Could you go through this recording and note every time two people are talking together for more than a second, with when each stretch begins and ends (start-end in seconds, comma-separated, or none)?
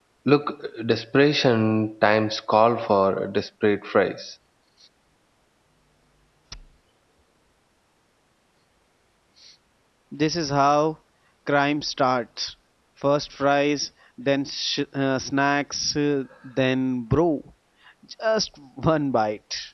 none